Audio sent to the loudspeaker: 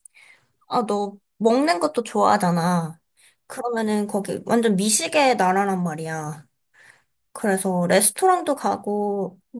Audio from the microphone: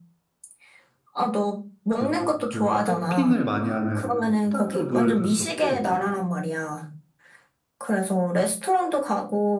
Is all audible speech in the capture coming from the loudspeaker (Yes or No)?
No